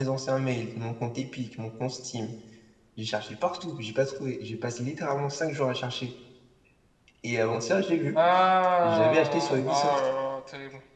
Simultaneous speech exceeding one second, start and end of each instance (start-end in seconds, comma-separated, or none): 8.8-10.0